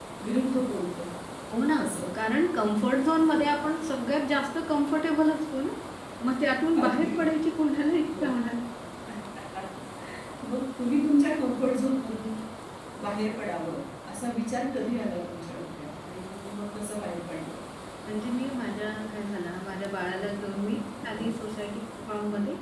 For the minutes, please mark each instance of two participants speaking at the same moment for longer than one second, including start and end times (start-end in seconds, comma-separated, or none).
none